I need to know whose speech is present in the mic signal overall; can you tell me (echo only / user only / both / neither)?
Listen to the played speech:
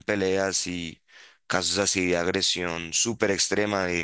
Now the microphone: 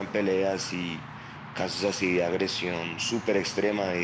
echo only